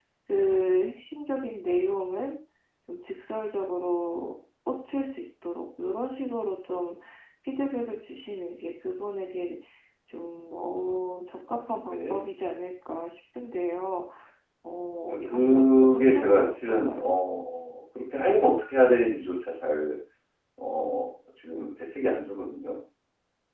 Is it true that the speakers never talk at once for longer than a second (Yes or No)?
No